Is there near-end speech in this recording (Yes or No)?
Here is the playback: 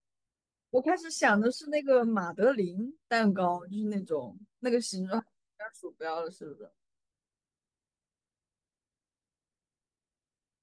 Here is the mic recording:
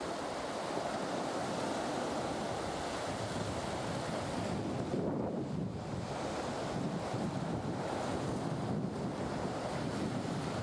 No